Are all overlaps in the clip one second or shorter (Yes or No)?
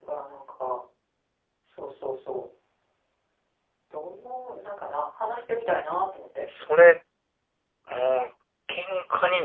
Yes